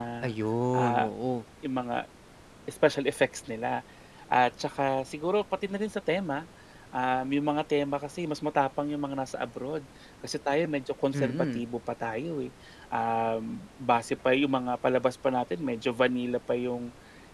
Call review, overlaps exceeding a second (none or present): none